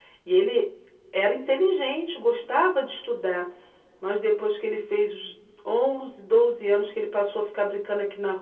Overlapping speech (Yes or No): No